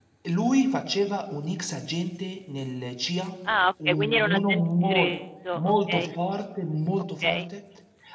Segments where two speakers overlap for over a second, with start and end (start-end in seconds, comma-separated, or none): 3.9-5.1